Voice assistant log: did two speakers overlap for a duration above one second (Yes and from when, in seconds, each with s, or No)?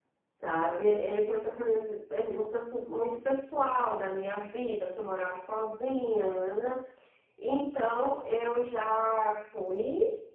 No